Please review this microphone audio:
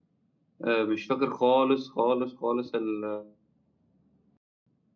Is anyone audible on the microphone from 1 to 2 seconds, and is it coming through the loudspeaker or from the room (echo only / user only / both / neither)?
user only